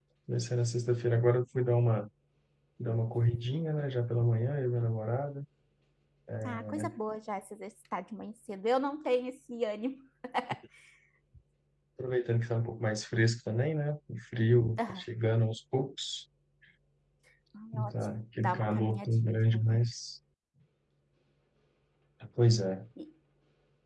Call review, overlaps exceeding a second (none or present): present